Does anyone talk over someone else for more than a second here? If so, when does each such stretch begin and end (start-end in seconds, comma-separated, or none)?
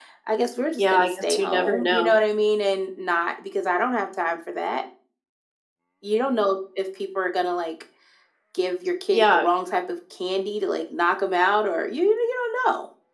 0.8-2.2